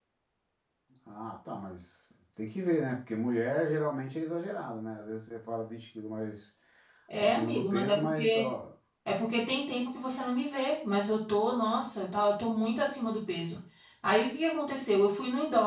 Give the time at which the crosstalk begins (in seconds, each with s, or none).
7.2 s